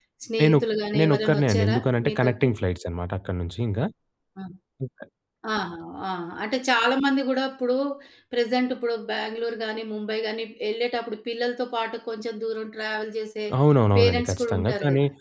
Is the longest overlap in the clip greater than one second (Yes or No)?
Yes